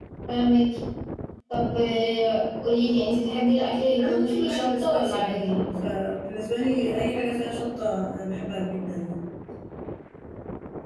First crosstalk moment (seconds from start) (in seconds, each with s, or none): 4.0 s